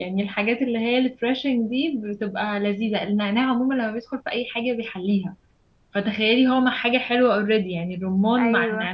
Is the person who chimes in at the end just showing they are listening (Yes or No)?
No